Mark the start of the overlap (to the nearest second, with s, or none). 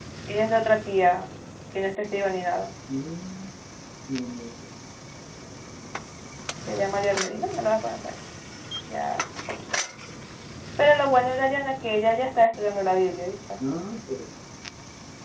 none